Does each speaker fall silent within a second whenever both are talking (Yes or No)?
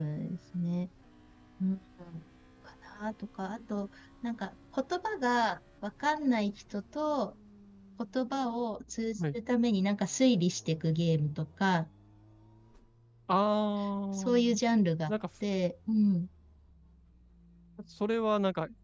Yes